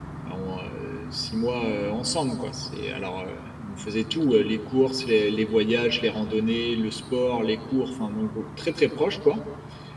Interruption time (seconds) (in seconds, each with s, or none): none